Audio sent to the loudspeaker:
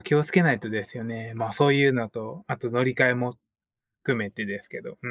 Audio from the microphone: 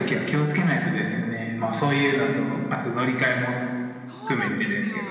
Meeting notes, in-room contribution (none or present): present